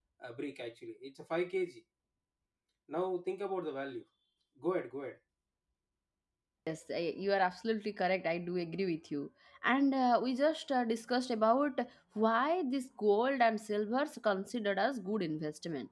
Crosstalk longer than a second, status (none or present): none